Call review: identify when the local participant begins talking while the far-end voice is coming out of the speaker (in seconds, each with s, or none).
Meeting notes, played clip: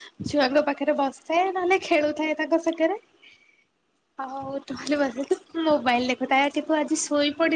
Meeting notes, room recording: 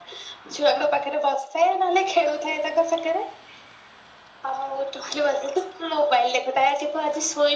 none